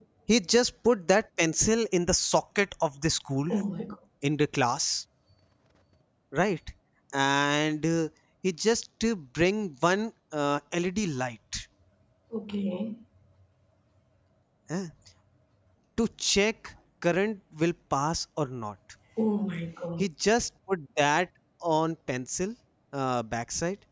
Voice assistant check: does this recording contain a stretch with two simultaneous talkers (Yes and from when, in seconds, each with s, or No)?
No